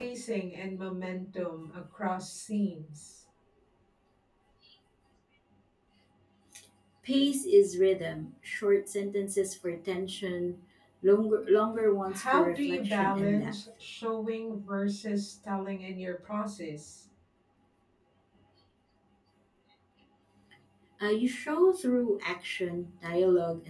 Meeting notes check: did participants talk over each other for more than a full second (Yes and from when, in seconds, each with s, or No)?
Yes, from 12.1 s